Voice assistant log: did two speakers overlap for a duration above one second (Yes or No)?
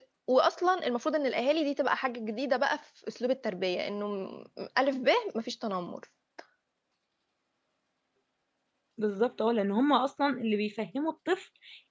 No